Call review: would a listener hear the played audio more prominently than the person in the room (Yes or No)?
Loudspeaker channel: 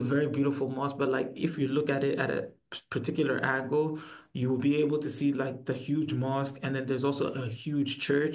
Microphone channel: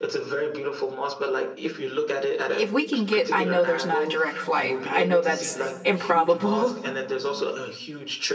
No